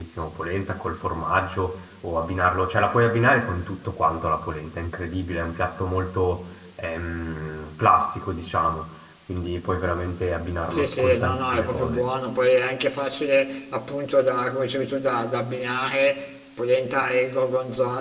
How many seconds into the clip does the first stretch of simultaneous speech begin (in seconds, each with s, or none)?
10.7 s